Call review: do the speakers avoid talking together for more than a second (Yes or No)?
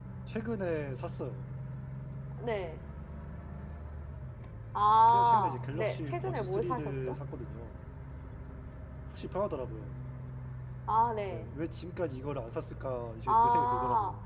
No